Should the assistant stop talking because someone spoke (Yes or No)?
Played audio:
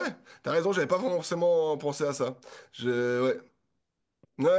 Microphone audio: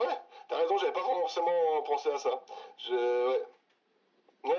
No